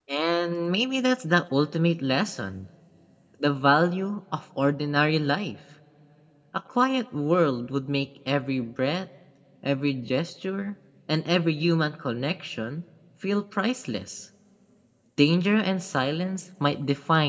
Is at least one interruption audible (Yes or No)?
No